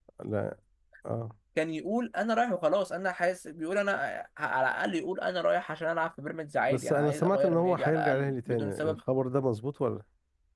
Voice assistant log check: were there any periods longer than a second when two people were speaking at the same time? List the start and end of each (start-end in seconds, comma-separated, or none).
6.7-9.0